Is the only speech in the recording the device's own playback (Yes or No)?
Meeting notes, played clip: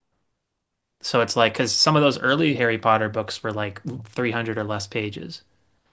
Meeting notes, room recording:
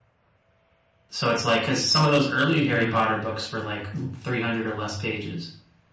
No